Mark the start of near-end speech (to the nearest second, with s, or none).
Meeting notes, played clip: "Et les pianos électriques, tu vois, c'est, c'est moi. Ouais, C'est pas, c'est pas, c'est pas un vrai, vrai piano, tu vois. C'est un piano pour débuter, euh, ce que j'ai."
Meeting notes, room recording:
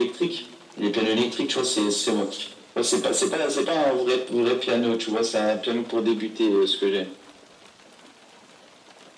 none